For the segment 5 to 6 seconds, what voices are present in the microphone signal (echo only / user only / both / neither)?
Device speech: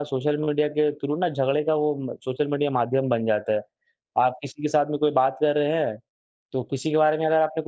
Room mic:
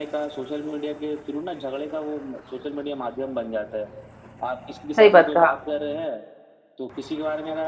both